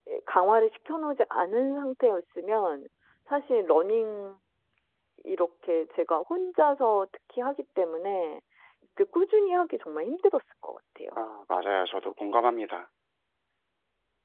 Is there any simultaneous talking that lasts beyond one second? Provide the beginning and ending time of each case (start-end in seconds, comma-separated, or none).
none